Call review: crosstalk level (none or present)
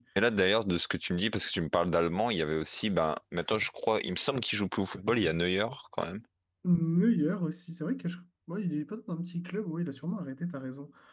none